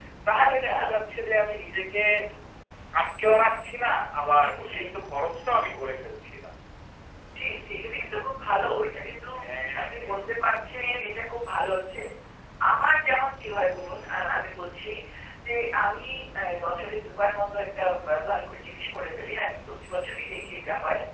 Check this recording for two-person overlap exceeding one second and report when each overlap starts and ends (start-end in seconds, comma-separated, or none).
none